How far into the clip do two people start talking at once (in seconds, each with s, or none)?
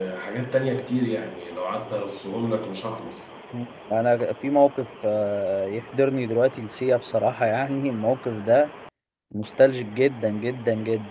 none